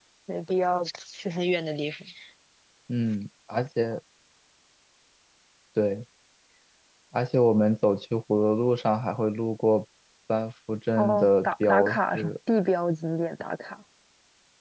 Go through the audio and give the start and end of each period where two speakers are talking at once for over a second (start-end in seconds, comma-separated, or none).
11.0-12.3